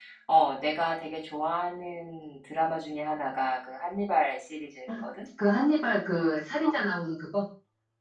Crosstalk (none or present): none